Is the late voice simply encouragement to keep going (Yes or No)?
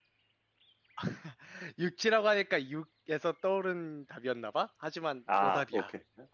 No